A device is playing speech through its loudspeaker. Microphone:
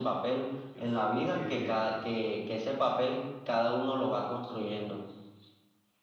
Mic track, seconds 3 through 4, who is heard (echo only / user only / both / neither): echo only